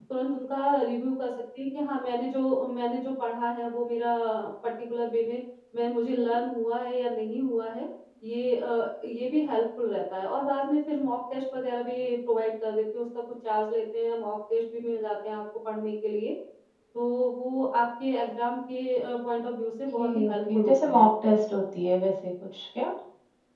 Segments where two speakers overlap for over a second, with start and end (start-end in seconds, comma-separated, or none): 19.9-21.1